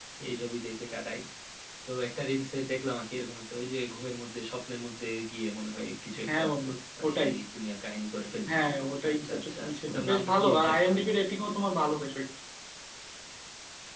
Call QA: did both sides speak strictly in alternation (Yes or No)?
No